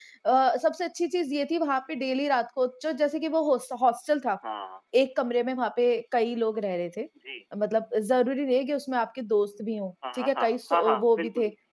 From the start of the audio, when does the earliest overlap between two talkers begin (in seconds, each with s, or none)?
10.0 s